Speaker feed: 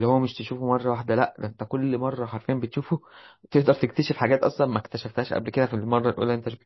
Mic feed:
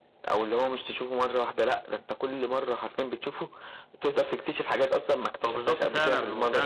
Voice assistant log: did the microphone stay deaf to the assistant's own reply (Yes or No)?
No